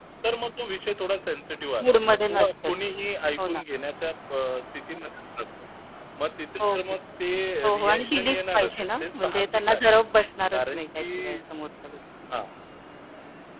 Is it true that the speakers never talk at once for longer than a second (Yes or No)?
No